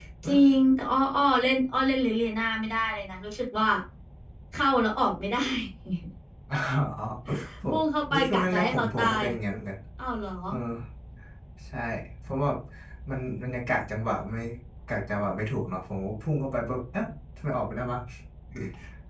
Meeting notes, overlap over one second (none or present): present